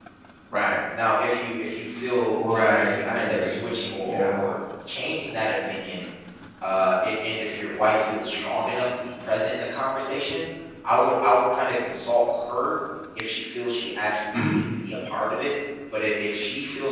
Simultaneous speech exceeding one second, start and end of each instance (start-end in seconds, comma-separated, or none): 2.3-3.6